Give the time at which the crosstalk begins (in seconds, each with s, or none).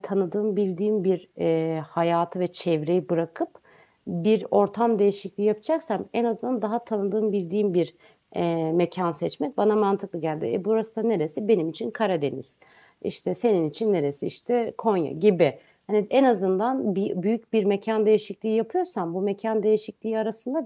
none